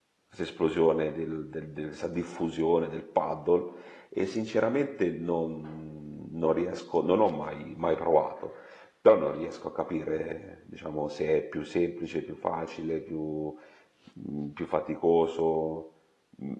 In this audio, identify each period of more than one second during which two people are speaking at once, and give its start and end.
none

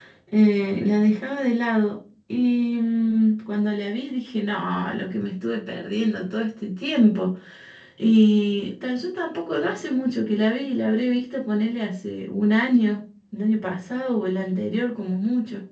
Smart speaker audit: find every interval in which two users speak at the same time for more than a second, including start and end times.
none

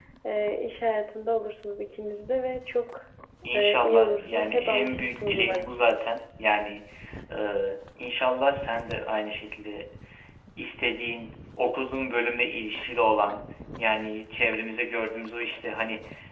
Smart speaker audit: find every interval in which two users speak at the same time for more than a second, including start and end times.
3.5-5.8

